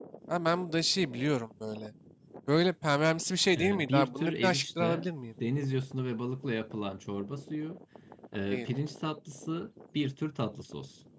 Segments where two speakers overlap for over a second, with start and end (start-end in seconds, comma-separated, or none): 3.5-5.1